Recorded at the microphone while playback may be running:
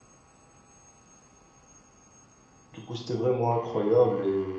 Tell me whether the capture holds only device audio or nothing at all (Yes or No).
No